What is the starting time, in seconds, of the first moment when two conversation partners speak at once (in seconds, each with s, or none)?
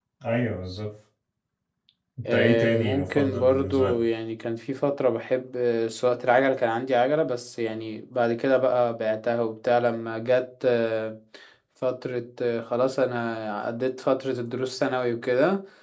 2.3 s